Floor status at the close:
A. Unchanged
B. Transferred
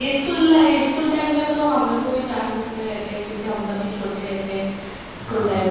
A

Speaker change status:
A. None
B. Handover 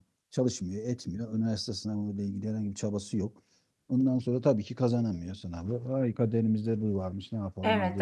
B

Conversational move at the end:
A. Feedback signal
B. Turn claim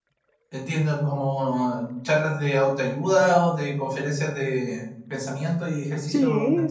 B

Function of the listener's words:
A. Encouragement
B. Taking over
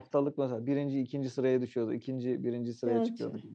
A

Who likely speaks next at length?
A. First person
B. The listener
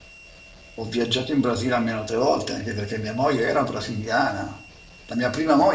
A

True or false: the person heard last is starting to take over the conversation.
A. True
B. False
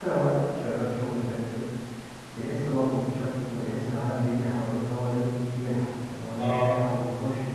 B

